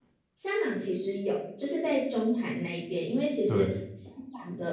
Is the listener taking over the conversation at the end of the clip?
No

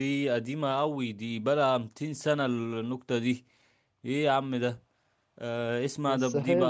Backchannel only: Yes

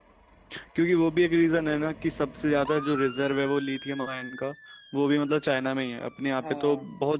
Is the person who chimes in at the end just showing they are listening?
Yes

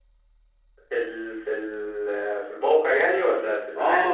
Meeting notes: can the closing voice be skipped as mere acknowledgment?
No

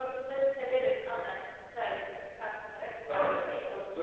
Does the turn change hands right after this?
Yes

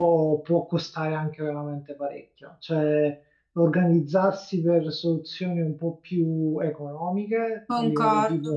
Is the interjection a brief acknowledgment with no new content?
Yes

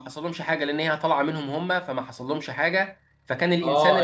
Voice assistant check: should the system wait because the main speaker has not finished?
No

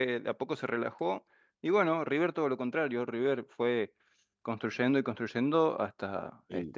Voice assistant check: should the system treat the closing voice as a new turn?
Yes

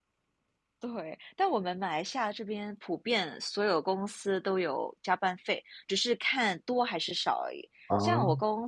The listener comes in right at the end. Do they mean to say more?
No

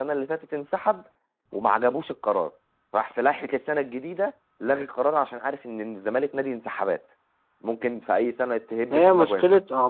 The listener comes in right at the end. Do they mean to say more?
Yes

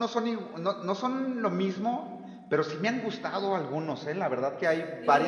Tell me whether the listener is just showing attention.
Yes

